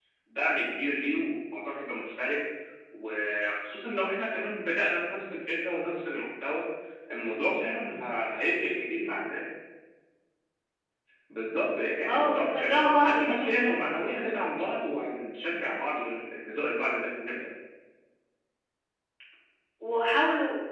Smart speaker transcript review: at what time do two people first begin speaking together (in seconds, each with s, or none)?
12.0 s